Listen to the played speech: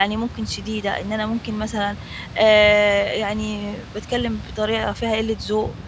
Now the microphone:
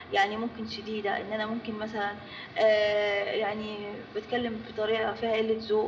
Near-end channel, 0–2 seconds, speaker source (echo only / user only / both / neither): echo only